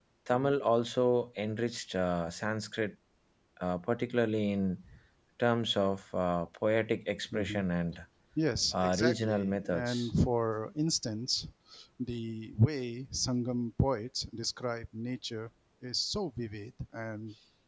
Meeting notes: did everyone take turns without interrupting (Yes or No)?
No